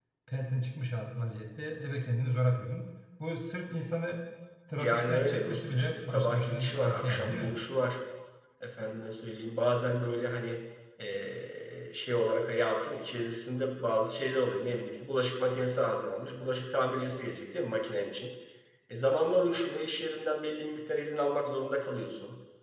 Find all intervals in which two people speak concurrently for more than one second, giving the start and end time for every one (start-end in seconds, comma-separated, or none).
4.8-7.5